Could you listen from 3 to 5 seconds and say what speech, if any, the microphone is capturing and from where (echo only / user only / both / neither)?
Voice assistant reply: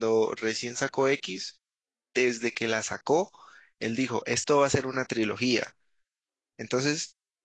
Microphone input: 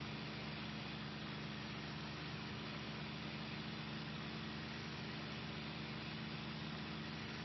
neither